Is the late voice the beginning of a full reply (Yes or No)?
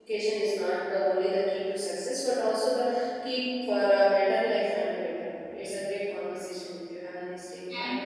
Yes